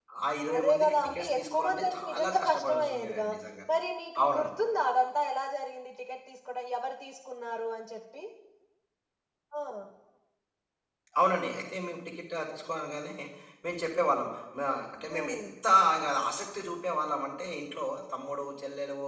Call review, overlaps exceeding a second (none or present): present